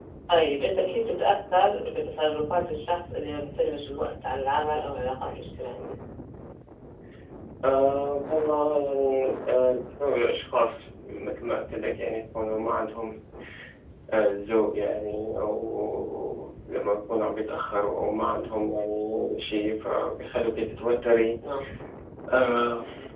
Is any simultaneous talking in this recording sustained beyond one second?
No

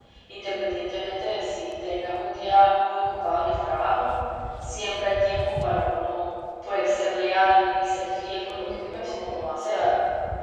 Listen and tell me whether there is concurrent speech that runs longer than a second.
Yes, from 8.6 s

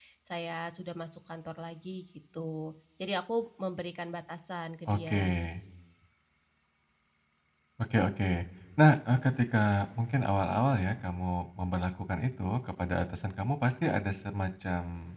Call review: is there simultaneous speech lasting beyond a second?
No

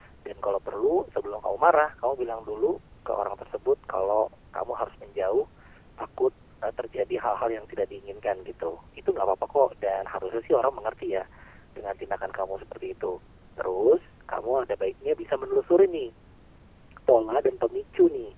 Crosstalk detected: No

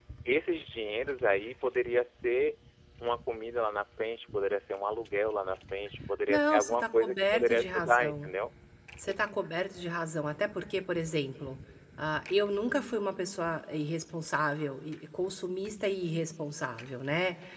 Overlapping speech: Yes, from 6.3 s

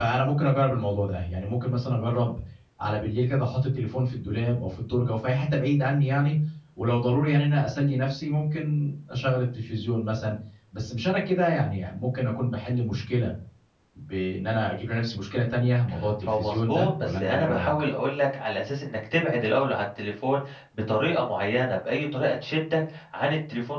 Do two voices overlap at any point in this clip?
Yes, from 16.3 s

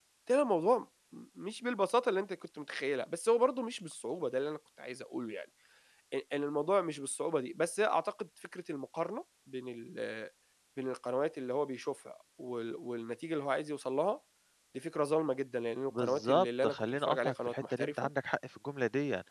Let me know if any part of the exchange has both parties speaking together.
Yes, from 15.9 s

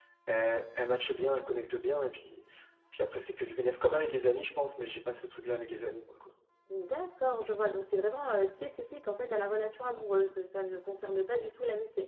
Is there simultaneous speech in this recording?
No

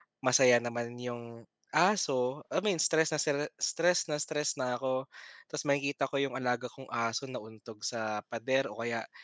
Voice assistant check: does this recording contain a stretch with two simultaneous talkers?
No

